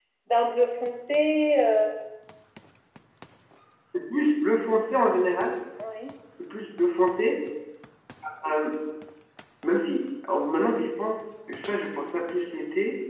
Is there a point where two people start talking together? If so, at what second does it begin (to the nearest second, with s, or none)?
none